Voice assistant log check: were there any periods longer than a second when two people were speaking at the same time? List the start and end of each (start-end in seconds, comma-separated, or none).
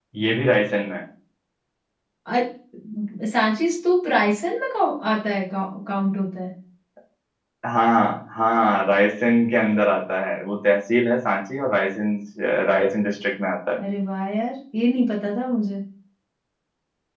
none